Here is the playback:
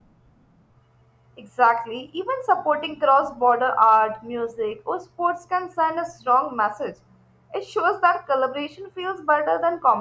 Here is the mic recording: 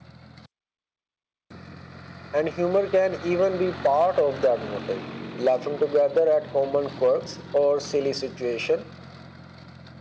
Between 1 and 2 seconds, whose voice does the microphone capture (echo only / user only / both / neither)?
neither